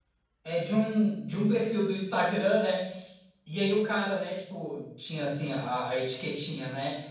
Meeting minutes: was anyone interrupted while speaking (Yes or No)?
No